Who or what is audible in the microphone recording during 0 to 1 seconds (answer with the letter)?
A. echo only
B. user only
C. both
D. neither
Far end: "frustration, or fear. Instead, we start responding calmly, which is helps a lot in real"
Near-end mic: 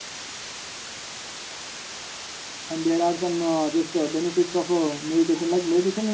D